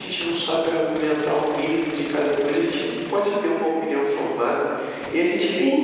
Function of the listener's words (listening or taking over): listening